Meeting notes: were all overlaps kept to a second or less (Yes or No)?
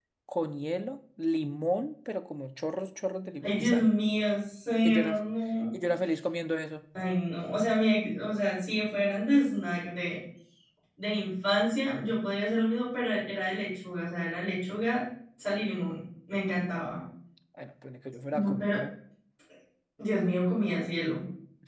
Yes